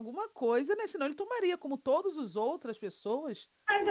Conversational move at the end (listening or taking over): taking over